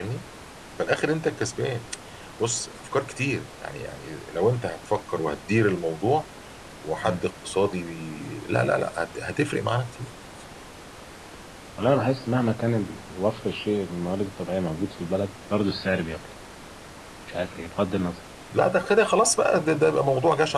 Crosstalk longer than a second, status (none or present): none